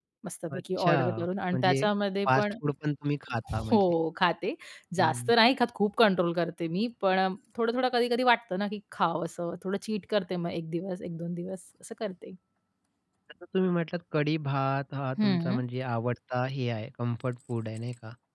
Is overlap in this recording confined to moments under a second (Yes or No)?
No